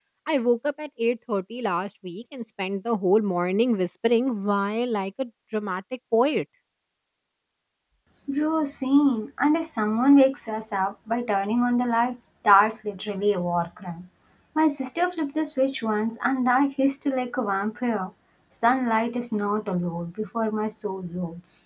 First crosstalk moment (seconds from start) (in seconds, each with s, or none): none